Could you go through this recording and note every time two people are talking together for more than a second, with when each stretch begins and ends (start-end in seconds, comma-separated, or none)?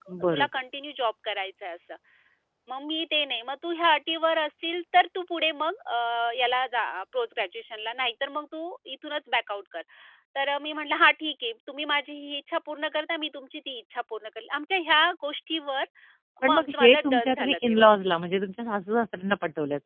16.4-18.0